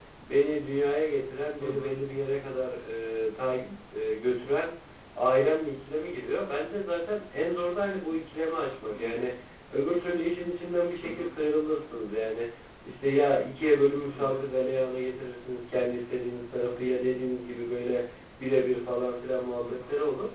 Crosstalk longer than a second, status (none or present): none